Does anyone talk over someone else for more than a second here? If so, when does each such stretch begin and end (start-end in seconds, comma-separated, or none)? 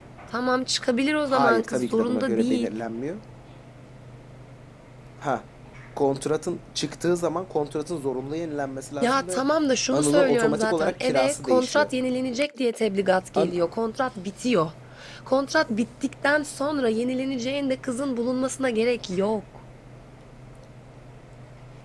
1.3-2.7, 9.9-11.9